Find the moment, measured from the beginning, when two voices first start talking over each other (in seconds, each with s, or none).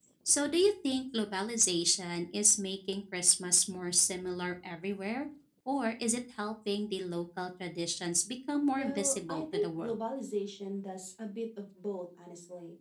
8.7 s